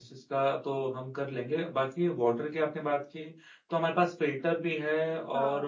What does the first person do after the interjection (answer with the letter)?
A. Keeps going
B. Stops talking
A